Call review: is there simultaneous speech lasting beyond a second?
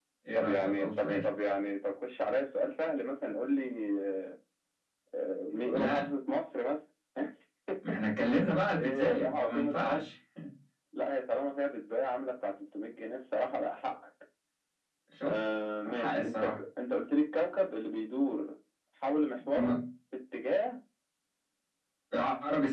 Yes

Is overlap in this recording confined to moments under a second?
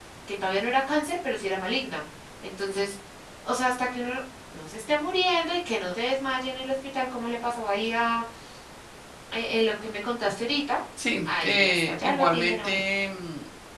No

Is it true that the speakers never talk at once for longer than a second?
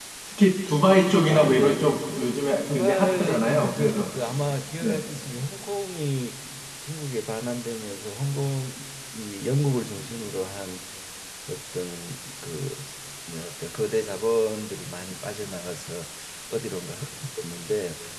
No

